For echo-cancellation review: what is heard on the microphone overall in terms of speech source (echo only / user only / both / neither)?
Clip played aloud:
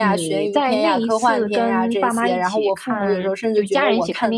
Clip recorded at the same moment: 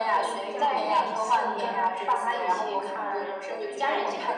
both